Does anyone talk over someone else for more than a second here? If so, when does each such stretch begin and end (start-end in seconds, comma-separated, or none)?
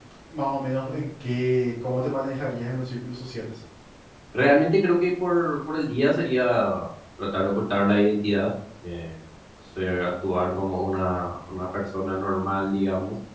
none